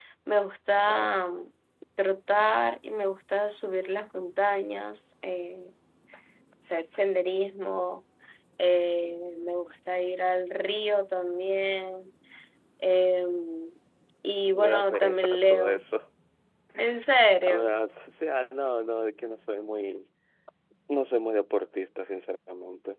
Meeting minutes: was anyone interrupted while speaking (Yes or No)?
Yes